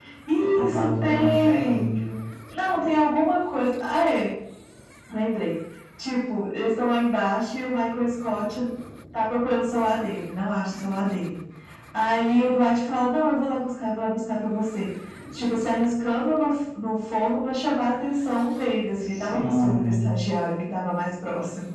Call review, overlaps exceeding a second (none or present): present